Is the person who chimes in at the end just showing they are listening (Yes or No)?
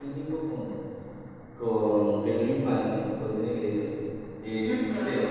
Yes